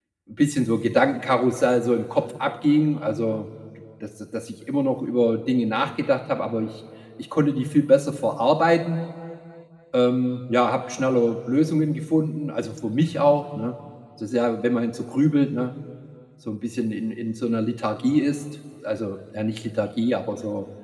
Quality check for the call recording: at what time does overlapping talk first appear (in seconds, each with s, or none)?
none